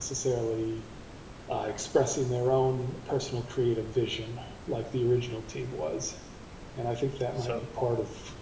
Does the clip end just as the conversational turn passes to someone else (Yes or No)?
No